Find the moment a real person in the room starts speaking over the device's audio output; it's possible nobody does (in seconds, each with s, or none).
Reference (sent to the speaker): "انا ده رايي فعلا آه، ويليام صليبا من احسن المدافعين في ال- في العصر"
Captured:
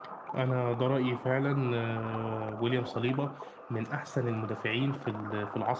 none